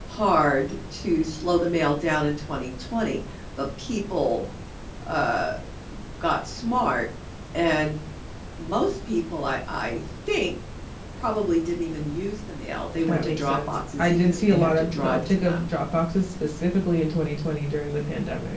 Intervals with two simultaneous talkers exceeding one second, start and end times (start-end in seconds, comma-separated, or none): 13.1-15.7